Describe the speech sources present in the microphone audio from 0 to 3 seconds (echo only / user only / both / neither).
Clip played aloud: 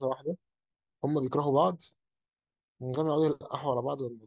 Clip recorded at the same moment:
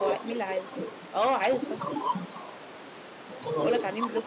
both